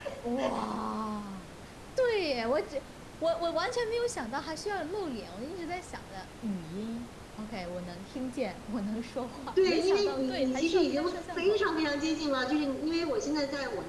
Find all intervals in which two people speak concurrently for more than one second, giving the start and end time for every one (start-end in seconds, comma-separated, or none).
9.5-11.7